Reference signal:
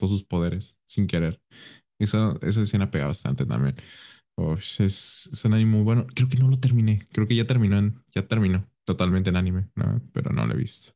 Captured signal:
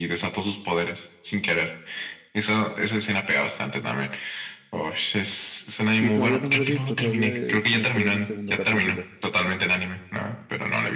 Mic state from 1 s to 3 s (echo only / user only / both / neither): echo only